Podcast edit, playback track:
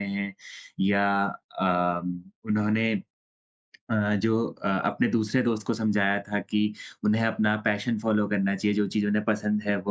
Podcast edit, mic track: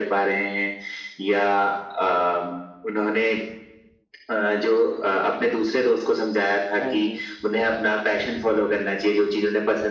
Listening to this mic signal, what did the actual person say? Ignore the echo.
हाँ जी।

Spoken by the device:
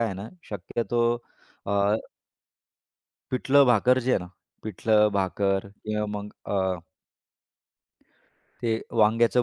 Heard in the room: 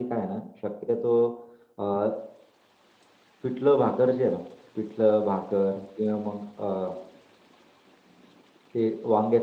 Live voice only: none

